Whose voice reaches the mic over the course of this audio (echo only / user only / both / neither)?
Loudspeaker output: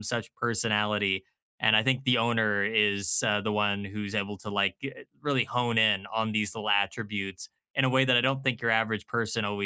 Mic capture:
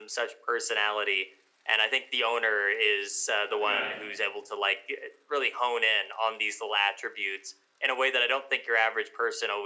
both